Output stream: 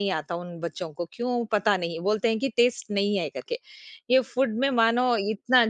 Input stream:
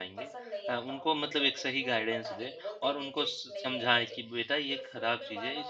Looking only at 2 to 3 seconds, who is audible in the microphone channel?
both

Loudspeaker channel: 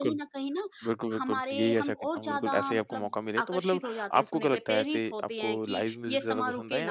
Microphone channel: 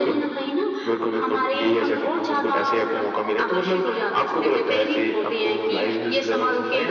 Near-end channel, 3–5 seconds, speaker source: echo only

